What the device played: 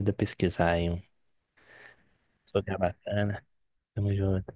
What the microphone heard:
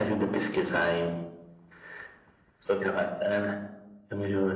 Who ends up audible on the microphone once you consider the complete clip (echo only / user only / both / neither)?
echo only